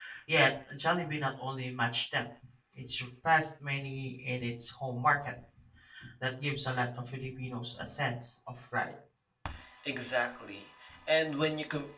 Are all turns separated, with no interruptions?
Yes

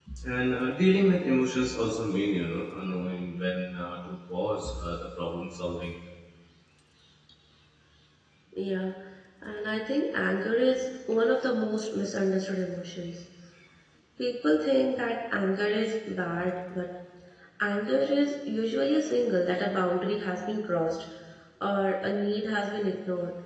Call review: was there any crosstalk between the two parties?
No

